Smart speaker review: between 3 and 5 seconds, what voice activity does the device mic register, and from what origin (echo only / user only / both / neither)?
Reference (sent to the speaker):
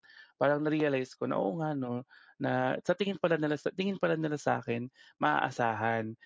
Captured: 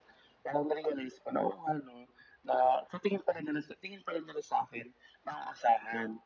echo only